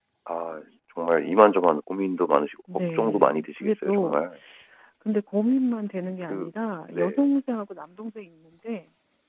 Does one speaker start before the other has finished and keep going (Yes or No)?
Yes